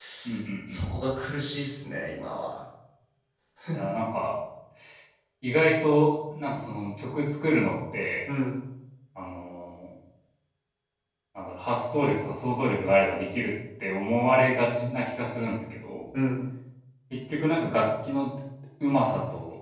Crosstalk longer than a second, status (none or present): none